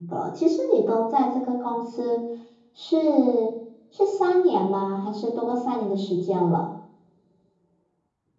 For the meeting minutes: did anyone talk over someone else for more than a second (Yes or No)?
No